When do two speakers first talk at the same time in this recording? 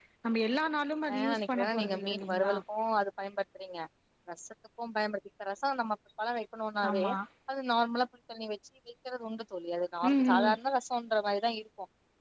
1.1 s

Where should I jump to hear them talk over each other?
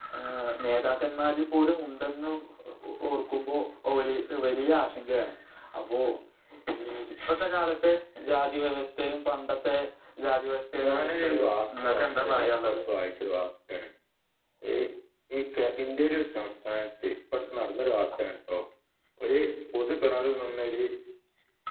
10.8 s

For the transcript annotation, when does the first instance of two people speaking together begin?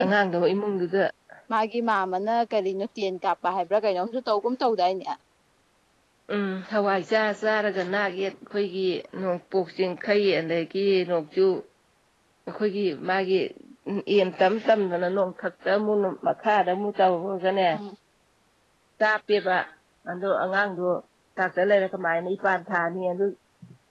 none

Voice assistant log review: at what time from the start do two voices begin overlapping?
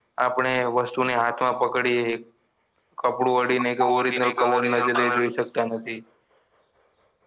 3.6 s

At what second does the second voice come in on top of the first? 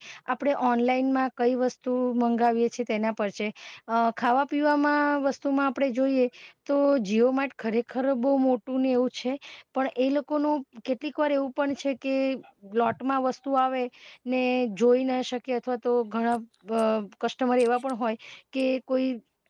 none

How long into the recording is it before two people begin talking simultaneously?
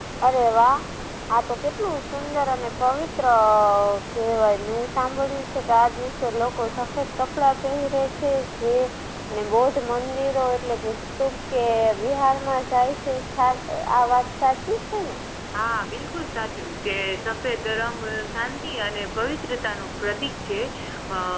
none

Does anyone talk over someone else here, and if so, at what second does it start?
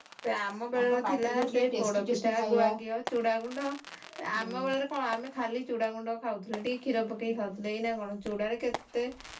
0.8 s

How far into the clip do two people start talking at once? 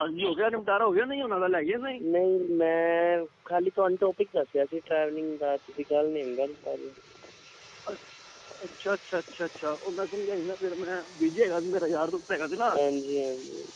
none

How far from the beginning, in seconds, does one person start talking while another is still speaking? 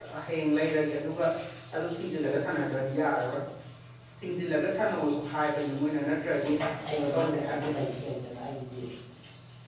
6.4 s

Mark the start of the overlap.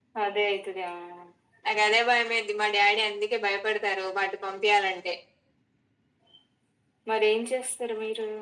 none

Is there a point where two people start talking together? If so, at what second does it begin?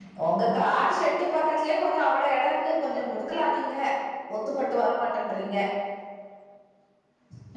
none

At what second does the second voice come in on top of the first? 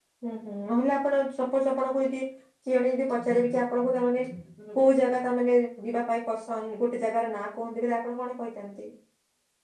none

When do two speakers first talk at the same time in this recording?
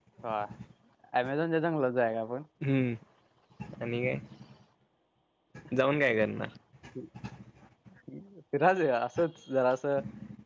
none

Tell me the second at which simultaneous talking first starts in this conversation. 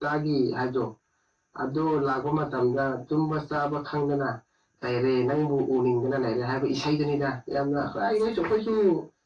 none

